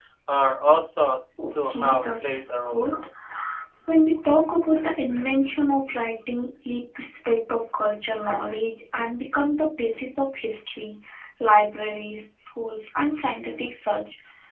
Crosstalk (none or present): present